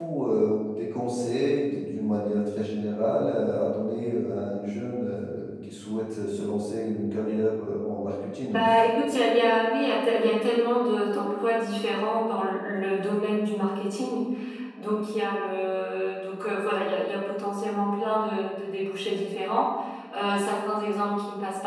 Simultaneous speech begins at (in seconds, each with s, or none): none